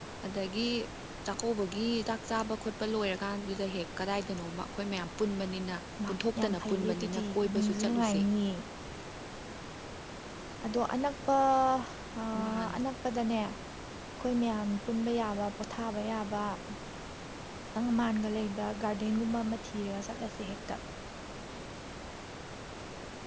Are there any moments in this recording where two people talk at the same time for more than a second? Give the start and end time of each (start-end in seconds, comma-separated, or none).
6.1-8.2